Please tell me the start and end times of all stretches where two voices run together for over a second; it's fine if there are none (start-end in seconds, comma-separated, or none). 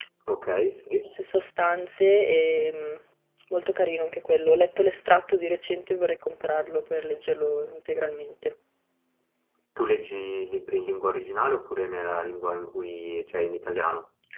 none